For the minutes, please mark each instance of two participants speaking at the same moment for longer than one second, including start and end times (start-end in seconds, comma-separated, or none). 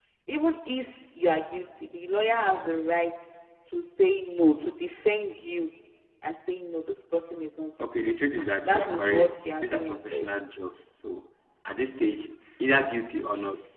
8.6-10.3